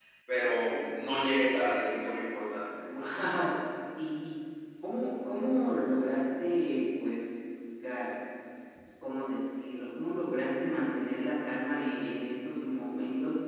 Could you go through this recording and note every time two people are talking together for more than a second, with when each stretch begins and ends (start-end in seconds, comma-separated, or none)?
none